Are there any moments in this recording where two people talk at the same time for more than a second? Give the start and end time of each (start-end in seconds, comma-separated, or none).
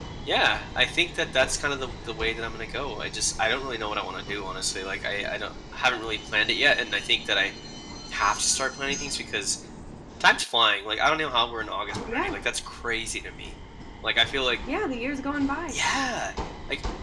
none